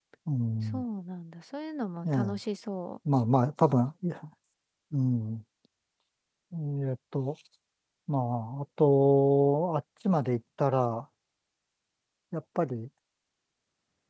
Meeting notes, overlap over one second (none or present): none